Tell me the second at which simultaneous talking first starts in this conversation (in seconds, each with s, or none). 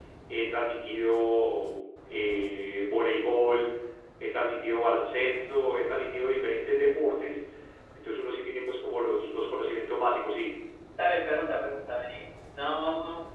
none